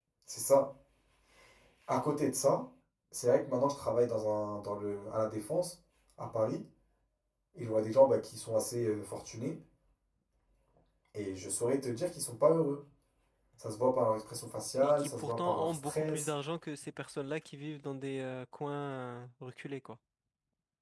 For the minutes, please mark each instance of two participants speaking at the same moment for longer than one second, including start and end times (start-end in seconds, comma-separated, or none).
14.8-16.3